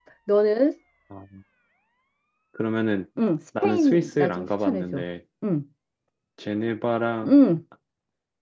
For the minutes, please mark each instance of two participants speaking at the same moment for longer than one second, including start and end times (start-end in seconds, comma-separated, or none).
3.6-5.0